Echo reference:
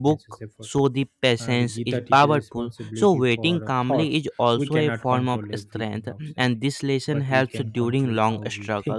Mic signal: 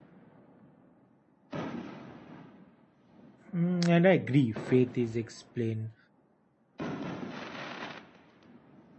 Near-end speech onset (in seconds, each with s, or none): 3.5 s